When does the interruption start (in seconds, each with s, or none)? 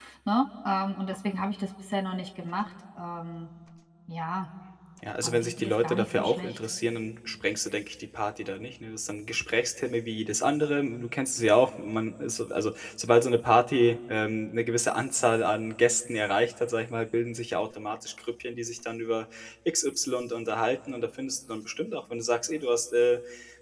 5.2 s